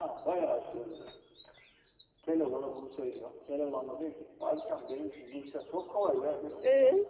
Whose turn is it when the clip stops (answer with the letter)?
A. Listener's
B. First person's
B